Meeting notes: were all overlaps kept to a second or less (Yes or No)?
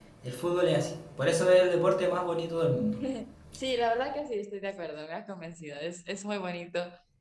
Yes